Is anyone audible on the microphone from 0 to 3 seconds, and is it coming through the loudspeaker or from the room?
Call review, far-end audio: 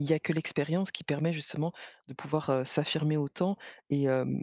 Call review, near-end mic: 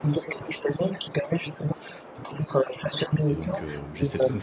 echo only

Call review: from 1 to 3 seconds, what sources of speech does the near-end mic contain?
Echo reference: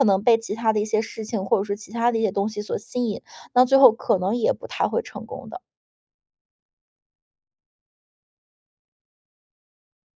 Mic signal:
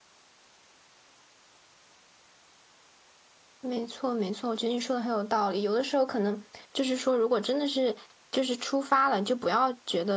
neither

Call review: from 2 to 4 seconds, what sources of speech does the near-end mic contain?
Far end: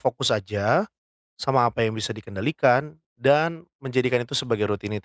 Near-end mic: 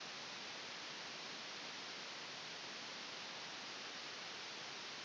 neither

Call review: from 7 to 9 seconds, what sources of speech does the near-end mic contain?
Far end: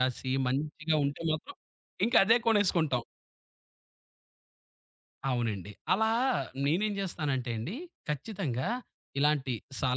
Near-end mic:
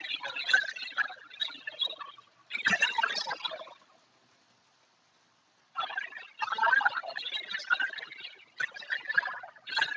echo only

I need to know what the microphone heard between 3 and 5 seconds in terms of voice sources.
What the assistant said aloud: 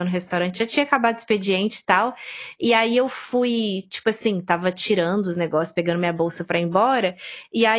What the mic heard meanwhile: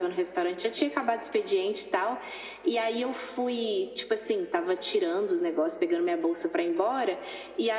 echo only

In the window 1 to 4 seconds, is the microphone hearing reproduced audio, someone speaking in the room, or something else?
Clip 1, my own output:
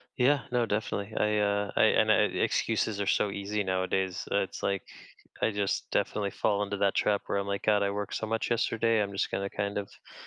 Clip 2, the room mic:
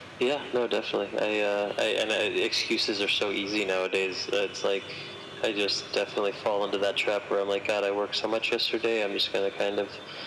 echo only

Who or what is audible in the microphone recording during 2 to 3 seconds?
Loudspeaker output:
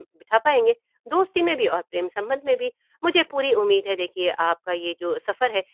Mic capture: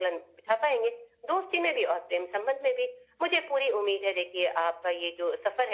echo only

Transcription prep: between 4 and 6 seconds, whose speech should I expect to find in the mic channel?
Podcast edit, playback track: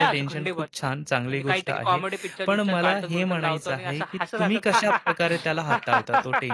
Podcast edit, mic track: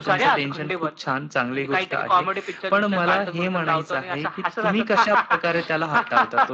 echo only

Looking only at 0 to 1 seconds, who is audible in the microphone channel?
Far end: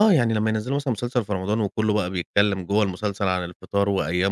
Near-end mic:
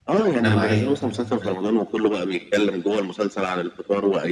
both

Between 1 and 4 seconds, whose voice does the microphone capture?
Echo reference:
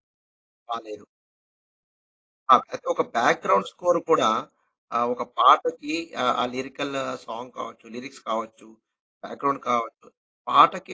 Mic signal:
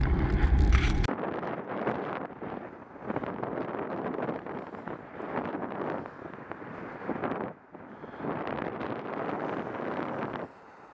neither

